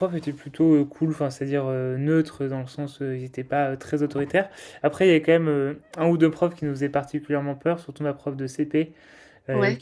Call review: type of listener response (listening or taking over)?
listening